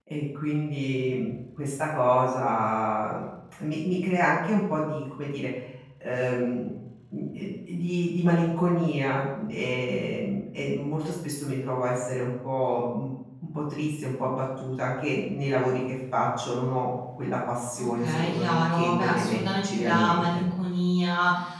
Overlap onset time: 17.8 s

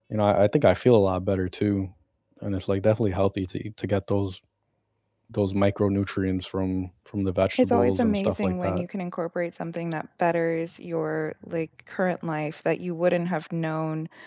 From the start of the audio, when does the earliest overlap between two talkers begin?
7.6 s

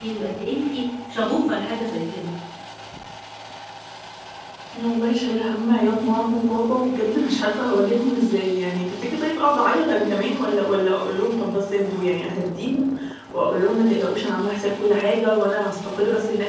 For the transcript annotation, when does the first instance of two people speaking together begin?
none

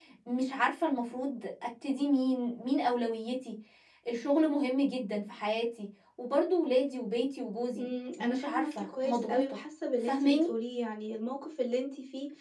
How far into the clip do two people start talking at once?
7.7 s

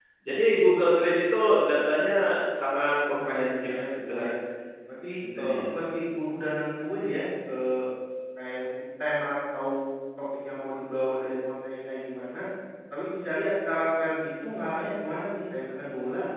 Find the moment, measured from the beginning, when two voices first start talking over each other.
3.1 s

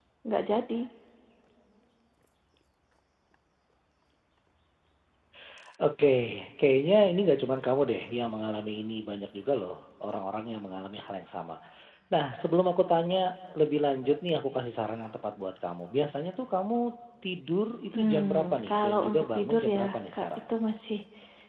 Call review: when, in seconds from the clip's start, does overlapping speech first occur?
17.9 s

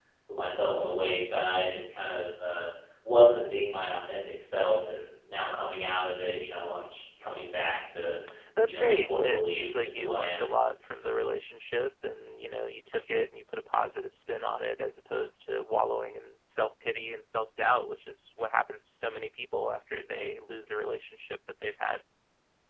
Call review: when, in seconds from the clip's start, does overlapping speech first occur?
8.7 s

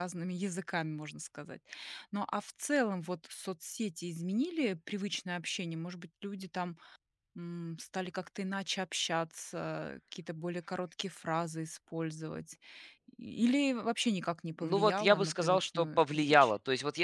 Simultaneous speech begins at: 14.6 s

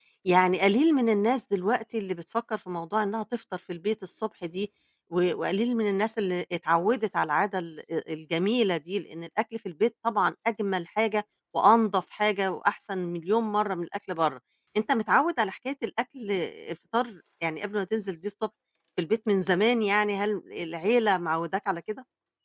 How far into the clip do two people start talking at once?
none

